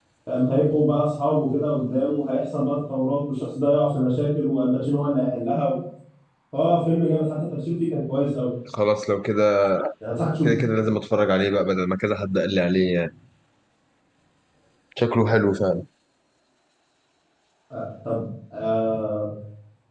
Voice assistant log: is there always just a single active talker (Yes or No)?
Yes